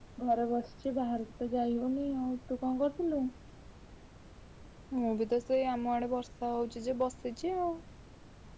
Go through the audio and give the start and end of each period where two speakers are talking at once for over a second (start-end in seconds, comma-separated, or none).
none